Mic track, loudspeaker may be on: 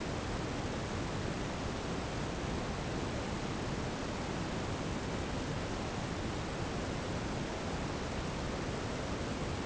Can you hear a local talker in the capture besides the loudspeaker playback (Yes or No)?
No